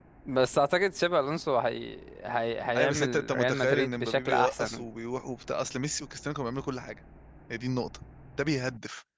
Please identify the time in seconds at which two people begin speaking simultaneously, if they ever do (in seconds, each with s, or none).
2.7 s